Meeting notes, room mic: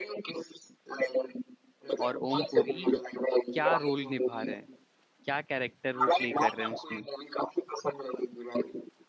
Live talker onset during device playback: 2.0 s

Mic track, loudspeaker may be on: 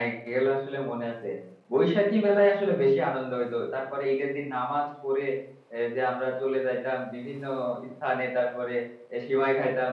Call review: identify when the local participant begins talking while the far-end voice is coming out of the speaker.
none

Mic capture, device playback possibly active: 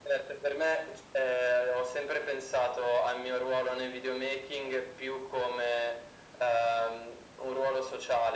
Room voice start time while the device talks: none

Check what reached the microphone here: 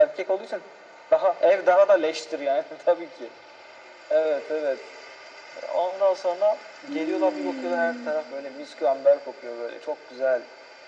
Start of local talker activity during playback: 6.8 s

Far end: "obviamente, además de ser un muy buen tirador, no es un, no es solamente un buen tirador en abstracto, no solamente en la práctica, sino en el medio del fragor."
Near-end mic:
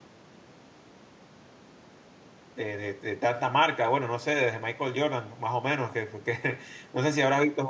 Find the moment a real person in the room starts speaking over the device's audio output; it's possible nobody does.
2.5 s

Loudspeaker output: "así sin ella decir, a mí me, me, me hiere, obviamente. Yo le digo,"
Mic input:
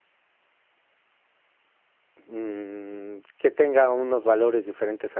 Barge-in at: 2.3 s

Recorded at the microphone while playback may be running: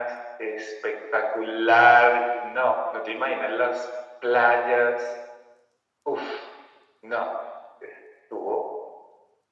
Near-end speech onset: none

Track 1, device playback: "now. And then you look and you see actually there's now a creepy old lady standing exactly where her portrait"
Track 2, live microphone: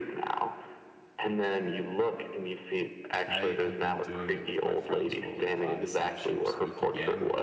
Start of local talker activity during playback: 3.3 s

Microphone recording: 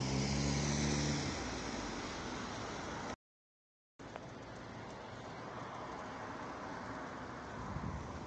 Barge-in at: none

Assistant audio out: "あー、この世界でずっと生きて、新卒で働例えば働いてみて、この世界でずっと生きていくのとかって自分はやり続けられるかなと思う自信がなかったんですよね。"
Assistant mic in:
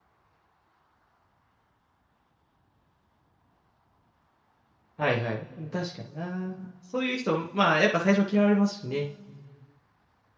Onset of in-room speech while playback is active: 5.0 s

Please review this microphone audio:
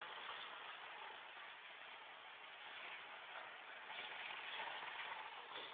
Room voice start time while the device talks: none

